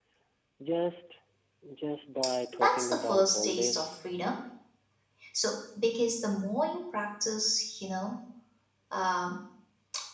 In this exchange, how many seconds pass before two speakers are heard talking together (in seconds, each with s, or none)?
2.5 s